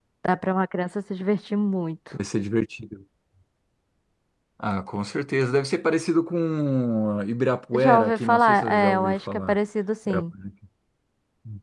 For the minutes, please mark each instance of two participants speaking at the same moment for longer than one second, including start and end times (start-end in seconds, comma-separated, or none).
7.7-9.6